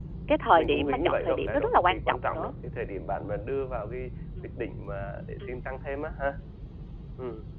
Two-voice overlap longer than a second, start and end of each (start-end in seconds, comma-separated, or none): 0.6-2.5